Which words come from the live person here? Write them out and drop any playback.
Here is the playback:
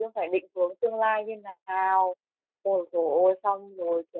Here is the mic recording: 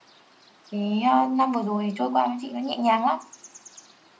thì ờ, năm vừa rồi trôi qua với chị nó nhẹ nhàng lắm

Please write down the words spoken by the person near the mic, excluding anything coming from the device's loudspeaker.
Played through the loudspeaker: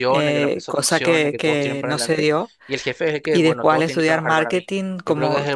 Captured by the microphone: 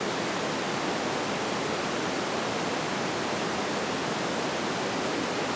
none

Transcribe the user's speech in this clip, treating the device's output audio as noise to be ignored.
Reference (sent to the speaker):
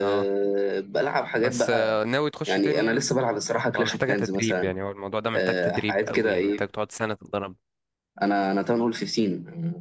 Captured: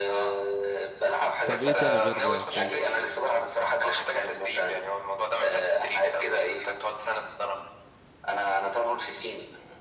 طب ايه تاني غير كرانكر

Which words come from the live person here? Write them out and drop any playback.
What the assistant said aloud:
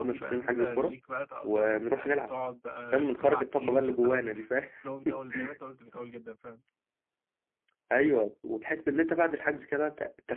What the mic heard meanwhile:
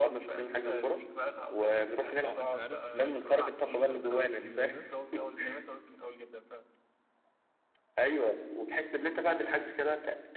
اه انت عارف بالنسبه اصلا حوار شد رد اسكندريه ده

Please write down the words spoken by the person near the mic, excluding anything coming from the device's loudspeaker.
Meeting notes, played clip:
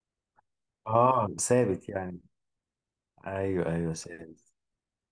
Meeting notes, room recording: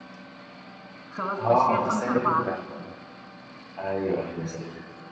خلاص مشيها خمسة أربعة

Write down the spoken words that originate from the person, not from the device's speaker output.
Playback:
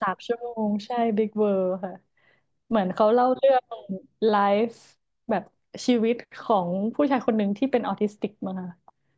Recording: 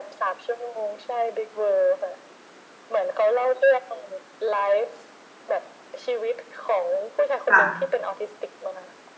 ค่ะ

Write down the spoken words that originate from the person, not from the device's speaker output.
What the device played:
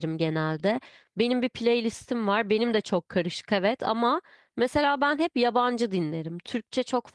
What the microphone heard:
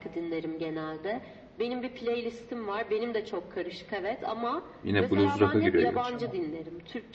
Yine blues rock'a giriyor gerçi ama.

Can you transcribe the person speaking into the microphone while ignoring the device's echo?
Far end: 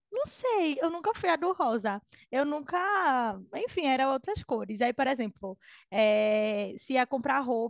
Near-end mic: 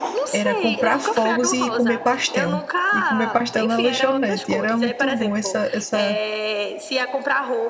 era comprar fogos e comer pastel. E comer pastel na lanchonete. E era muito bom essa, essa

